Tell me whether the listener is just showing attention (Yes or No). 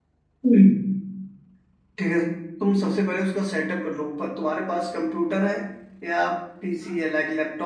Yes